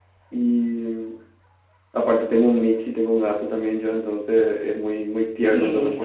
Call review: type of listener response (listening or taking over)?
listening